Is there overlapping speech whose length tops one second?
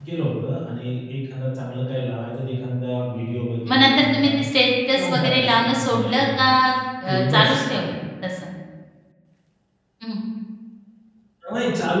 Yes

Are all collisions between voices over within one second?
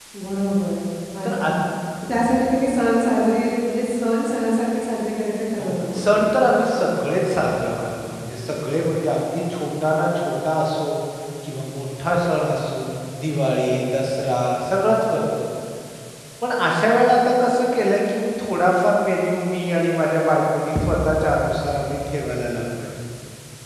Yes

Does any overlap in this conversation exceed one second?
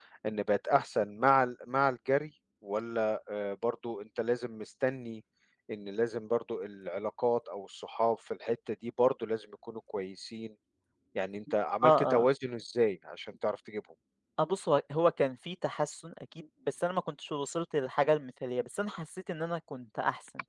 No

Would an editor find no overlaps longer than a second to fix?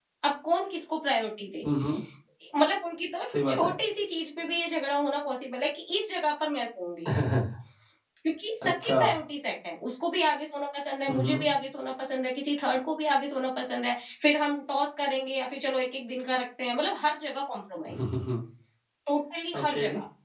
Yes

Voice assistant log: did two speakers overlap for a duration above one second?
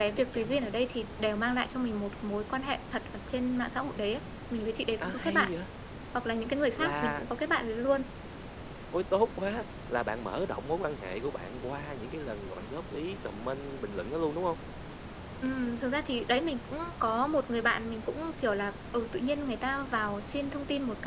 No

